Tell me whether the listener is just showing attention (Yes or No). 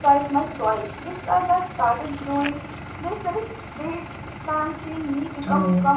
No